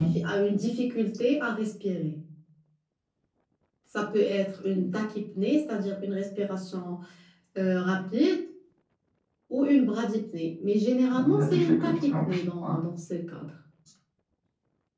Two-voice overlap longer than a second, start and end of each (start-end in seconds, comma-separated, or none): 11.3-12.8